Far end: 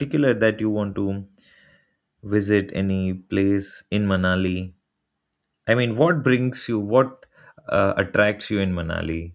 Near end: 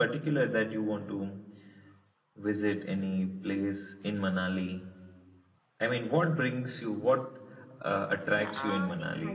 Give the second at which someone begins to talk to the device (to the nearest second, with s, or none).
8 s